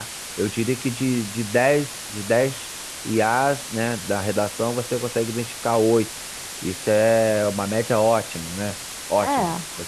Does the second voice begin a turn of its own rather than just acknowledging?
No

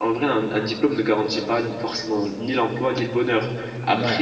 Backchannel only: Yes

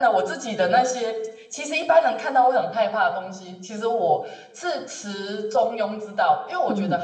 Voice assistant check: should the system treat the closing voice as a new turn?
No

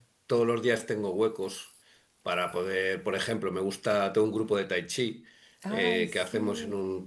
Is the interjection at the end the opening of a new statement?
No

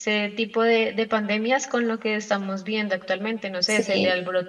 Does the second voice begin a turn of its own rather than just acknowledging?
No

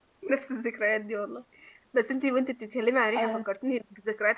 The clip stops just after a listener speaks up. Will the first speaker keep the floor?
Yes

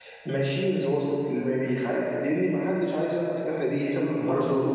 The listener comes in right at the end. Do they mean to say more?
Yes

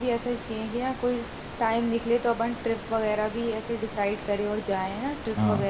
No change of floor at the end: No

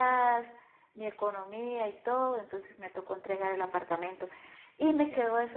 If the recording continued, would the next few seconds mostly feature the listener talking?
No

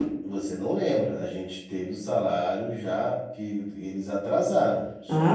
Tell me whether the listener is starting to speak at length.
Yes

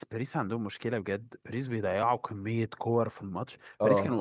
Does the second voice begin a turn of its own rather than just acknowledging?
No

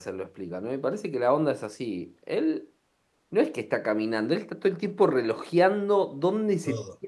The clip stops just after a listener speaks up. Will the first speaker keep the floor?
Yes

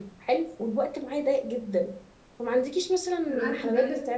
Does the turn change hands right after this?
No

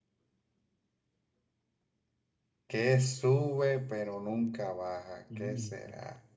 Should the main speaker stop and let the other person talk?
No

